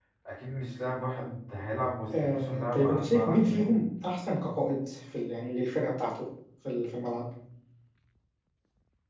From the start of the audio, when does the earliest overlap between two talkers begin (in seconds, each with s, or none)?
2.1 s